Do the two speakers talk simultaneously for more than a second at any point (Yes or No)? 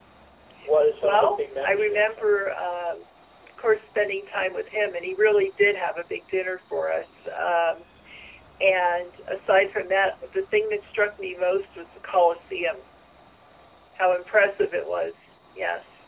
Yes